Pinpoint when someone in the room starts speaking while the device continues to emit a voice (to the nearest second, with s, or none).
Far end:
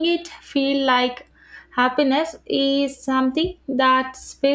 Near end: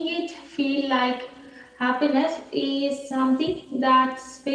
none